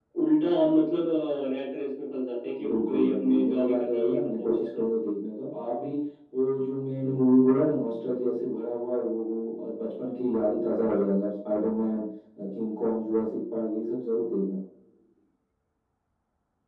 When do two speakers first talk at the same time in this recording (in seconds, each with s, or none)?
2.6 s